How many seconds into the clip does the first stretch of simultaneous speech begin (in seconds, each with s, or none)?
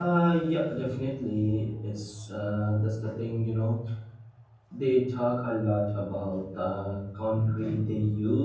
none